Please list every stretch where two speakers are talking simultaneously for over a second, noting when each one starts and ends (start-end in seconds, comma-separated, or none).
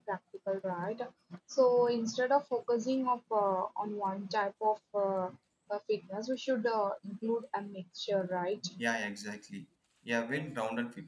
none